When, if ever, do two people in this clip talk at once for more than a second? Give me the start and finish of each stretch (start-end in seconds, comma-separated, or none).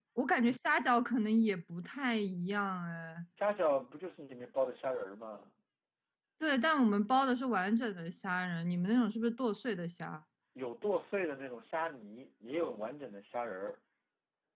none